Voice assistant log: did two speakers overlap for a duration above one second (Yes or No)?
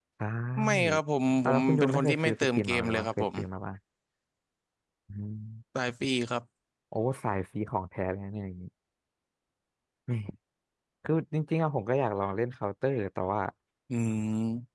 Yes